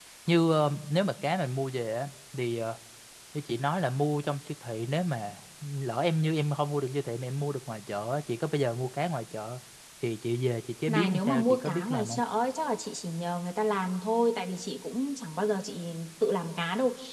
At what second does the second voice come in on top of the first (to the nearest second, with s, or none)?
11 s